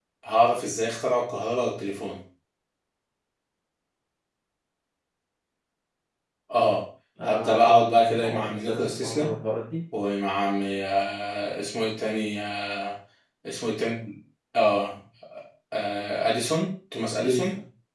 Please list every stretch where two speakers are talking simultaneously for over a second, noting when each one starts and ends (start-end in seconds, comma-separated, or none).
7.2-9.3